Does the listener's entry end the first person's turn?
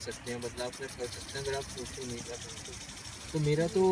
No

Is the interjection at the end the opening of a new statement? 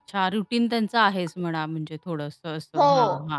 Yes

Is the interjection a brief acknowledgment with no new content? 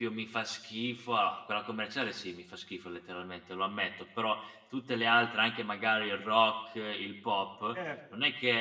Yes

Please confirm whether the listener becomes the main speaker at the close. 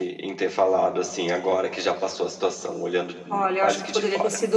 Yes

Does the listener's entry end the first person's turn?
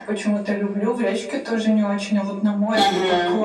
Yes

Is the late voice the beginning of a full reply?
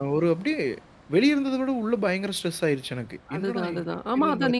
Yes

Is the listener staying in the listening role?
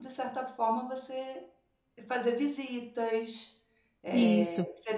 Yes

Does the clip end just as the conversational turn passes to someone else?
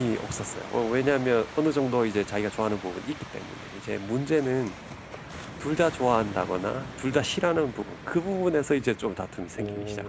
Yes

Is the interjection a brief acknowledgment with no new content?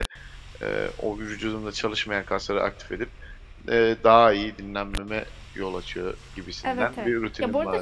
No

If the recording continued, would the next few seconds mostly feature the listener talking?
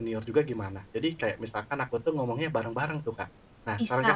Yes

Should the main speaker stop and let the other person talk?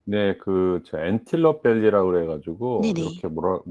No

